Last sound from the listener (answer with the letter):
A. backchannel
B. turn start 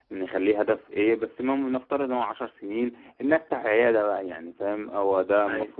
A